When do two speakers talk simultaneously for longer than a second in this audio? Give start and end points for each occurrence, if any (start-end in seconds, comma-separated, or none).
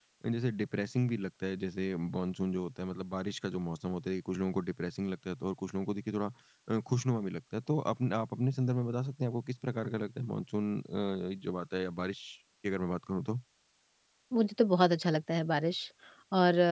none